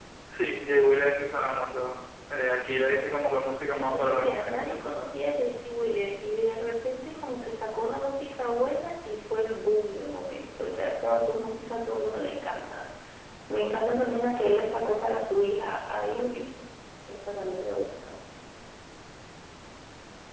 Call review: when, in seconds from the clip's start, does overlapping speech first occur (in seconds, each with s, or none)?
3.7 s